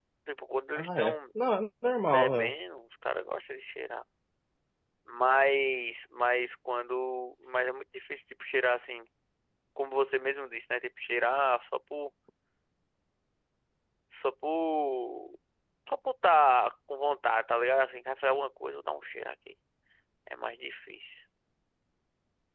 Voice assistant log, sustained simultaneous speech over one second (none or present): none